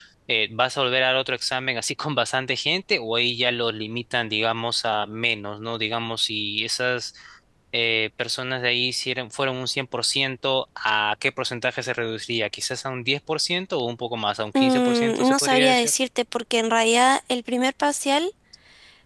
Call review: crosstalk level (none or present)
present